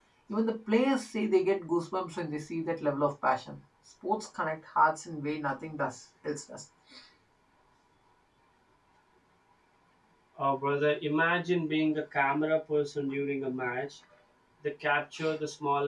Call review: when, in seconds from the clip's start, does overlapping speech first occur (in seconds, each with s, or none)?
none